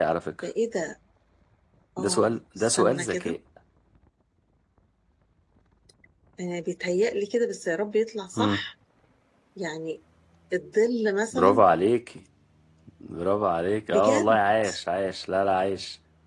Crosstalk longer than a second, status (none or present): present